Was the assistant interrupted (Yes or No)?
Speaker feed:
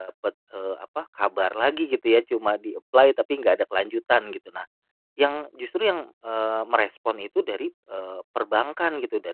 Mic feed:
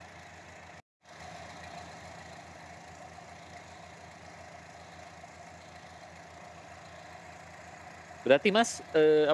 Yes